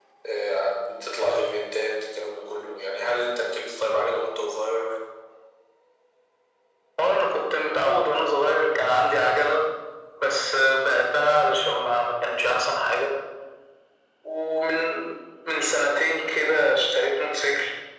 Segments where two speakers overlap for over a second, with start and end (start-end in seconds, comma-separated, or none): none